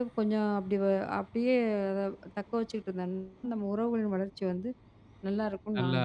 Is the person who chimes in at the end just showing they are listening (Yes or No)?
No